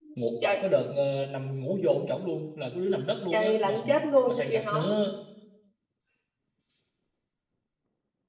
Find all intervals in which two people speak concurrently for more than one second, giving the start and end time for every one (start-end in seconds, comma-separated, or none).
3.3-4.9